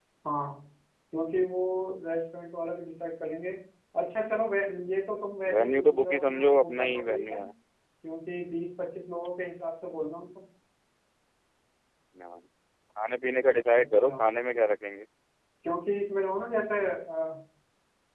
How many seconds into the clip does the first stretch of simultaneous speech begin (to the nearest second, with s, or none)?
6 s